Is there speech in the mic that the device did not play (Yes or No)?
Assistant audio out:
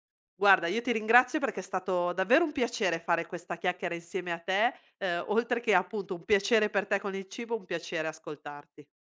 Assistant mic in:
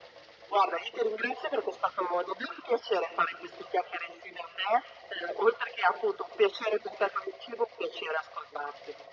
No